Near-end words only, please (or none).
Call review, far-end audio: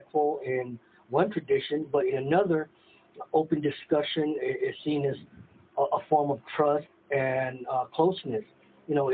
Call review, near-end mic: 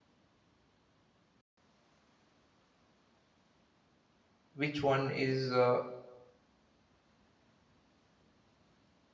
which one is uh,